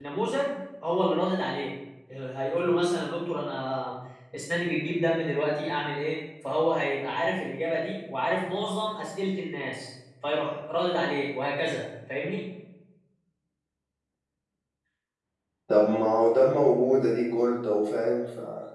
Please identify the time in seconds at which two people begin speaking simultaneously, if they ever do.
none

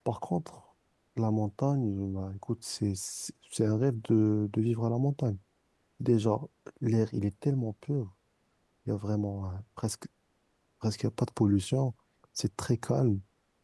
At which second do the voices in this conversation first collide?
none

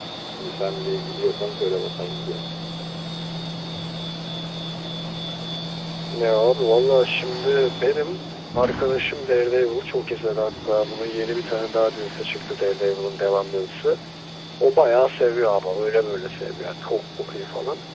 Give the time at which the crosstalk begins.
none

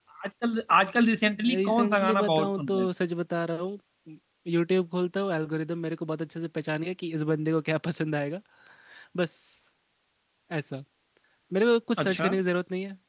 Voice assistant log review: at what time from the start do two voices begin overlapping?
1.4 s

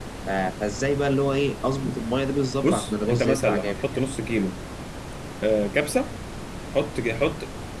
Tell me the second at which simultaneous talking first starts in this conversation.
2.6 s

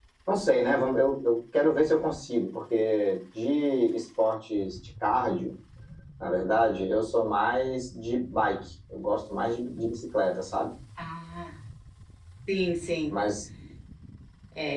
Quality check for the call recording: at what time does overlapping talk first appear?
none

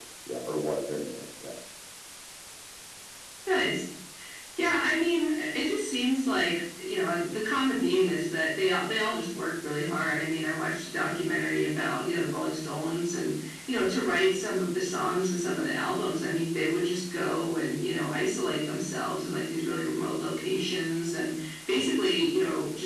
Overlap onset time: none

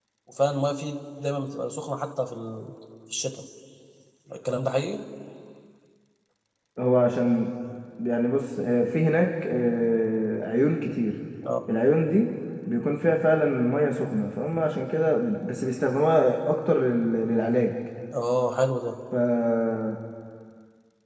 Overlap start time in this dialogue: none

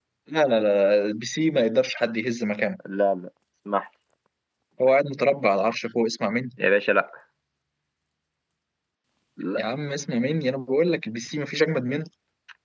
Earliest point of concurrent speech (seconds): none

